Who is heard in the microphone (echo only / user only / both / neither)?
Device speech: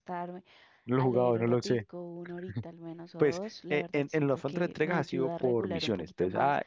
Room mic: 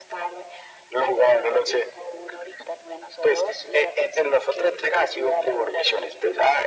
echo only